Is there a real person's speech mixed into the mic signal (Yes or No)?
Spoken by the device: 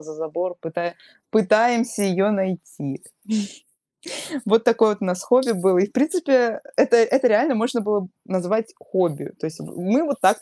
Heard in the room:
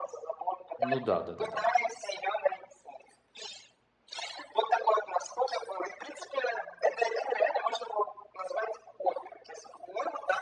Yes